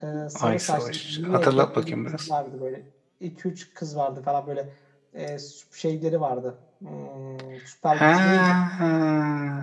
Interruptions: present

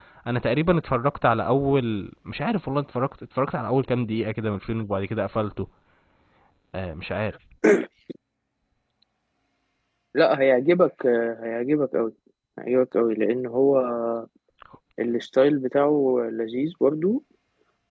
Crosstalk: none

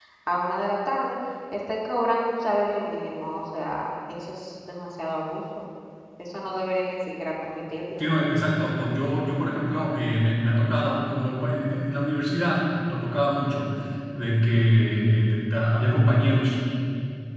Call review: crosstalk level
none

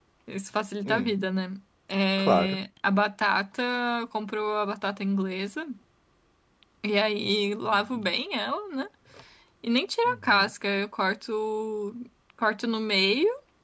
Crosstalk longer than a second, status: none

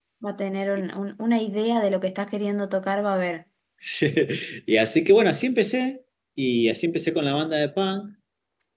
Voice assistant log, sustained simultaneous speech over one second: none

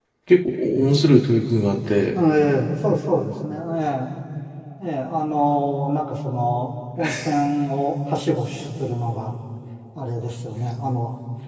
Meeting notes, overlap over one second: none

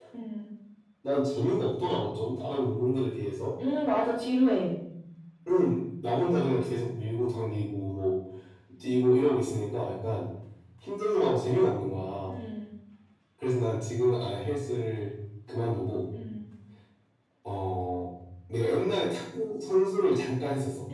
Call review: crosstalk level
none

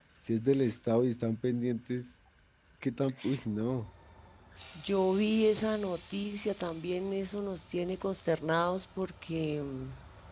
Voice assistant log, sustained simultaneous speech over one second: none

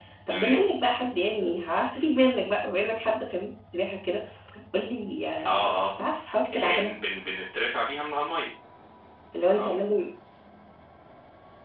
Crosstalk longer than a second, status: none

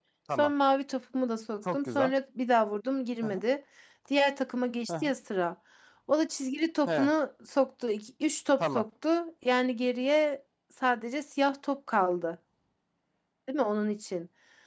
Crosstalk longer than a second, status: none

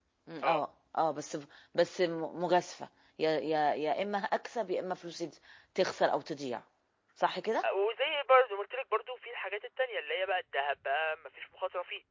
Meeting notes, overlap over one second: none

